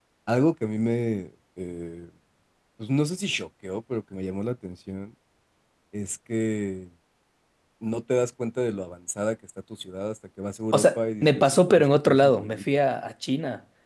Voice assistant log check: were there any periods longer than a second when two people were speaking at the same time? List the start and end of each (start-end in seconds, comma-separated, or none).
10.7-12.6